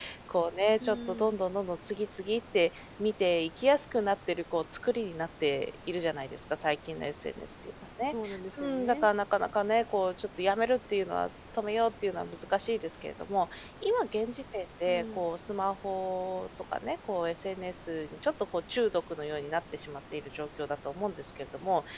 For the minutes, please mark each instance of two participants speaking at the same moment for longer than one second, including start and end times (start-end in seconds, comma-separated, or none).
none